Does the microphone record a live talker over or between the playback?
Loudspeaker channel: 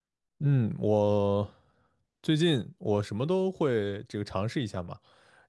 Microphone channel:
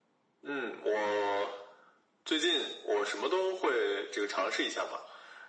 No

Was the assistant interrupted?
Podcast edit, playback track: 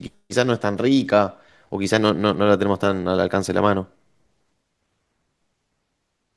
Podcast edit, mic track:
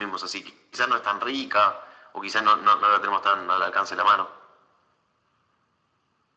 No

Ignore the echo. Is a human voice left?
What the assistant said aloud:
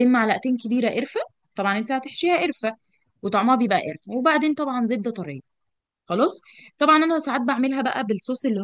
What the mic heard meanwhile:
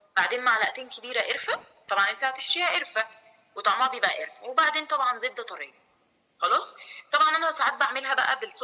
No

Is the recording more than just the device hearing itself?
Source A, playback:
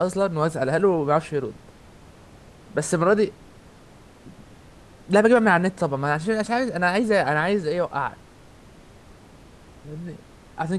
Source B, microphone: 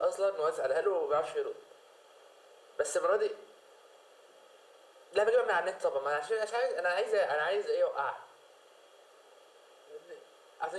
No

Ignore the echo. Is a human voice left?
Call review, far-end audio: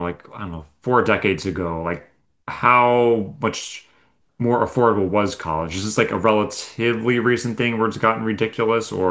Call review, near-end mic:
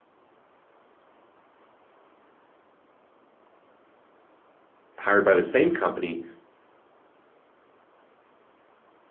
Yes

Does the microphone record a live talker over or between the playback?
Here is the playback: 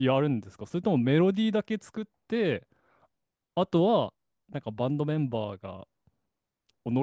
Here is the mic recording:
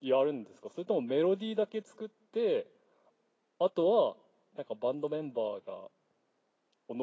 No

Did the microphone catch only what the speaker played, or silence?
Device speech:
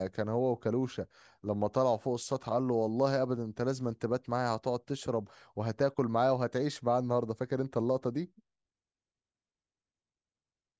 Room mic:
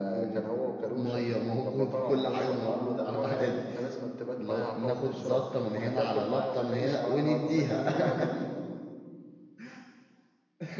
No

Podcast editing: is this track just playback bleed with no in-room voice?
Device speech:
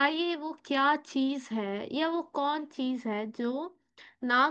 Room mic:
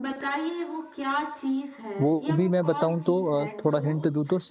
No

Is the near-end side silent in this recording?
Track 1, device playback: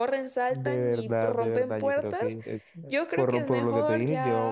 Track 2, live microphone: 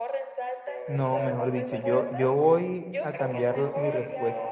No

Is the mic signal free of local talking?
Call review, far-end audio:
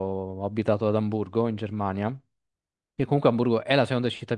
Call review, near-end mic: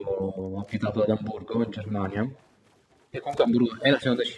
Yes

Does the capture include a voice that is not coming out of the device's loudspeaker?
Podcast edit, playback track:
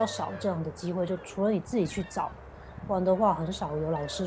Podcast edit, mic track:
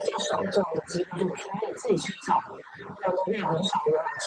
No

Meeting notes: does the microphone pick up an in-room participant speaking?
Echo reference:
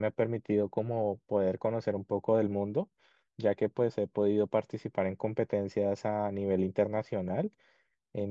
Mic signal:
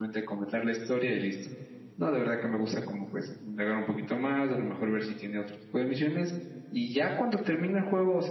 Yes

